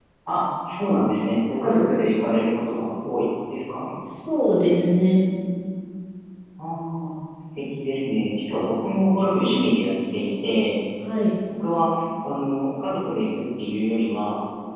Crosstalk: none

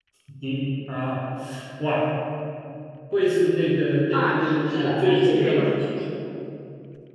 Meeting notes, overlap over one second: present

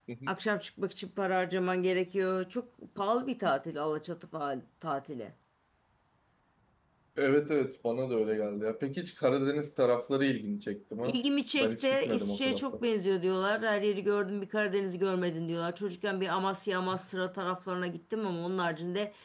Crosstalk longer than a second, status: present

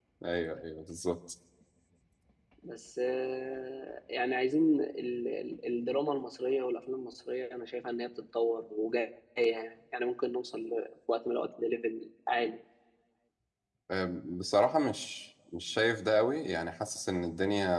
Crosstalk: none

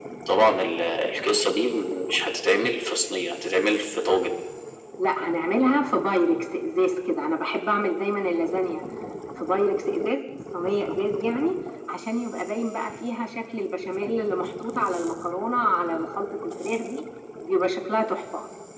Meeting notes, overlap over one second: none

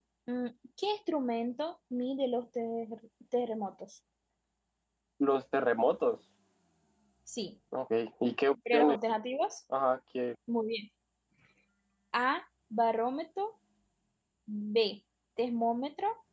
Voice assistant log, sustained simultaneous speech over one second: none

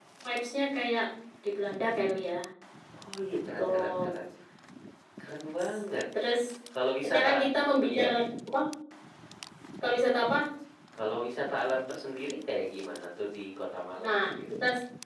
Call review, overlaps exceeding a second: none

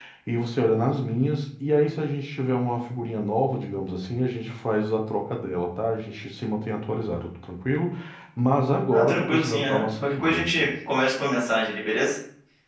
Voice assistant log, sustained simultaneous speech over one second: present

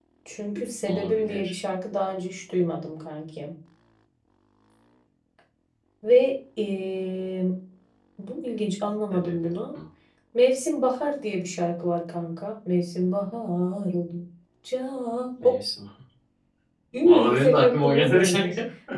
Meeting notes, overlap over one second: present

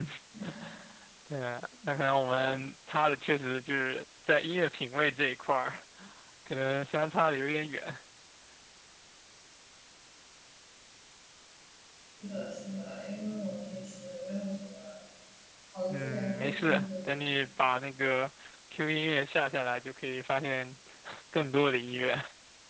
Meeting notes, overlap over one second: present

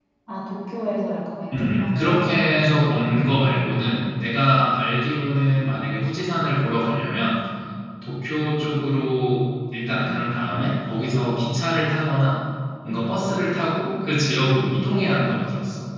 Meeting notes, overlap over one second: present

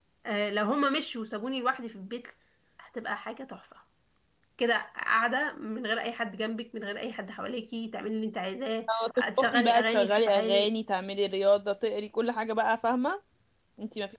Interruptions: present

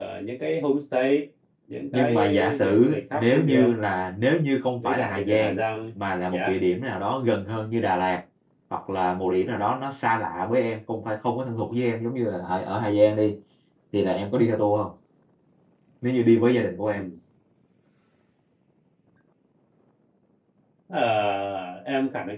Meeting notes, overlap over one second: present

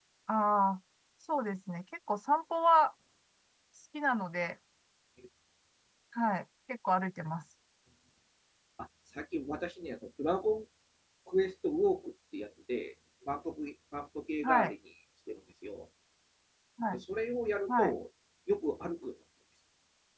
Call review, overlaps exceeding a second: none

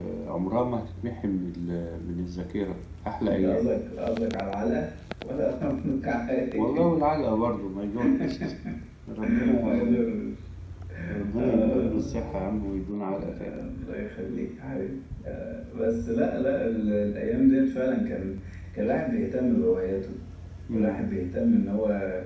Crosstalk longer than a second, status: present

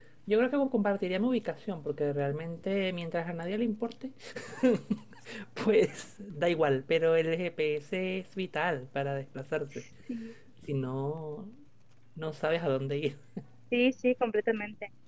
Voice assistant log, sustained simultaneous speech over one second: none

